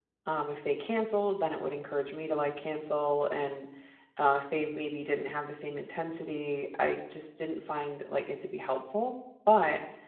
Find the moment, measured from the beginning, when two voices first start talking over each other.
none

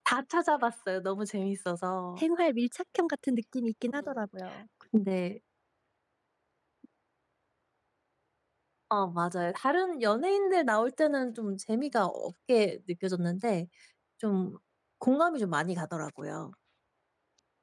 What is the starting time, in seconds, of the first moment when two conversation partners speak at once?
none

